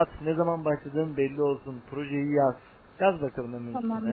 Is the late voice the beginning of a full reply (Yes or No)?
Yes